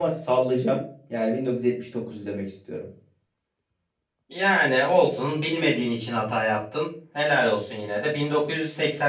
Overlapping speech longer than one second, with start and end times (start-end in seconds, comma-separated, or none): none